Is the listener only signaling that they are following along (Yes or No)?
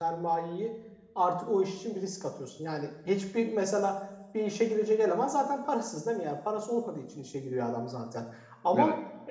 Yes